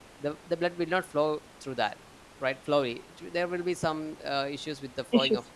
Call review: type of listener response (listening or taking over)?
listening